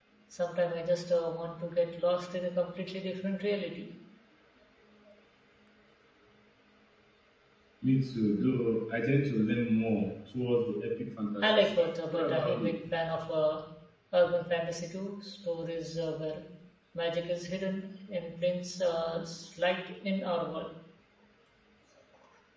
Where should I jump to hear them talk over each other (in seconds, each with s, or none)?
11.4 s